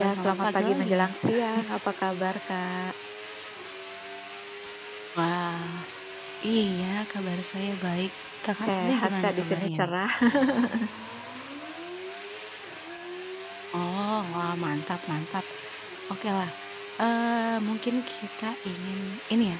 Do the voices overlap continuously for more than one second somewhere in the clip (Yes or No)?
Yes